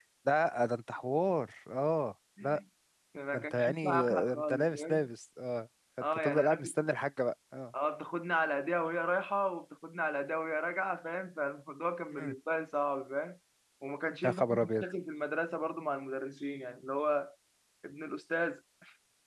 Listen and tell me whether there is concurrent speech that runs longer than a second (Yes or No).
Yes